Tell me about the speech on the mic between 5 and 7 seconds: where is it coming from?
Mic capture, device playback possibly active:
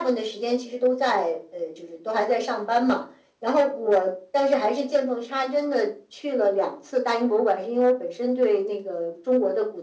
echo only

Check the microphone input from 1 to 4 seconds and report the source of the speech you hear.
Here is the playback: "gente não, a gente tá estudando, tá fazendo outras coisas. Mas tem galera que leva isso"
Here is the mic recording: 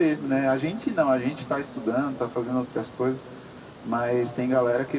echo only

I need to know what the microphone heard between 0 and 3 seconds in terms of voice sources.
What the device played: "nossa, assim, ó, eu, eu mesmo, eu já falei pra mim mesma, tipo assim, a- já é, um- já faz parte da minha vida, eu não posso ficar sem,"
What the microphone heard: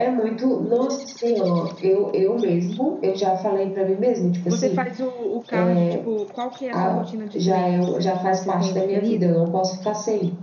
echo only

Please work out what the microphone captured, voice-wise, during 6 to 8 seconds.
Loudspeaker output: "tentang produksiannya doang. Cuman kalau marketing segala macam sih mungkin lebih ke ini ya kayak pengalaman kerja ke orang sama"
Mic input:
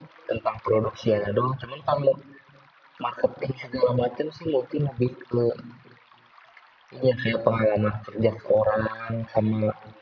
echo only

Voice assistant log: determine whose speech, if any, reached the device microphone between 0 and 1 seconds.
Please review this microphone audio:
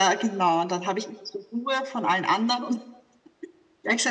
echo only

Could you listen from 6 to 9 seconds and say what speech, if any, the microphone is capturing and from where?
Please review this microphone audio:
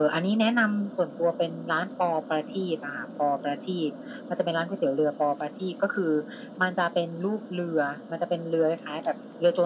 echo only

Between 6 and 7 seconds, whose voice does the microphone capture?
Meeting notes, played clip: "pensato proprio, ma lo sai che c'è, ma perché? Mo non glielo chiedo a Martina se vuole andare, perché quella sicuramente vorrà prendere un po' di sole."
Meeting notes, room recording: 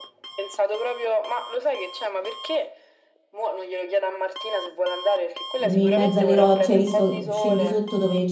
both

